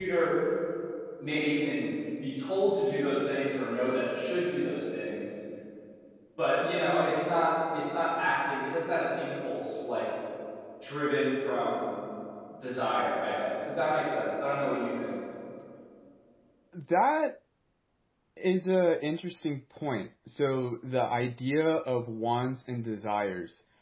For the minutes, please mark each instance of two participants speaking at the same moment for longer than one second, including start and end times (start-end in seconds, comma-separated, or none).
none